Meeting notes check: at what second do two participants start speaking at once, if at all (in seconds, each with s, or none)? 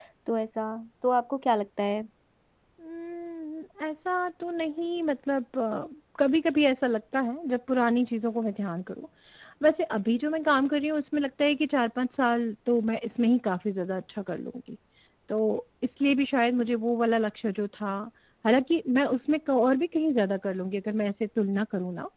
none